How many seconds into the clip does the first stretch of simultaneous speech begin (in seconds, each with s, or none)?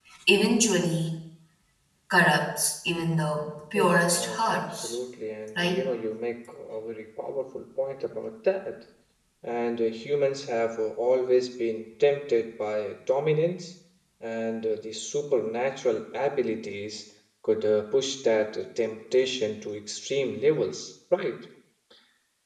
3.7 s